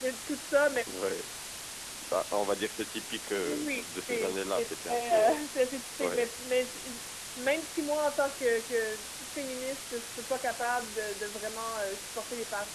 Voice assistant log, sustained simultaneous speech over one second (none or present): present